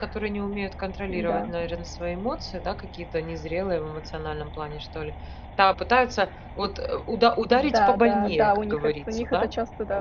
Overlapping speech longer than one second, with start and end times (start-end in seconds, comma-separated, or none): 7.5-9.5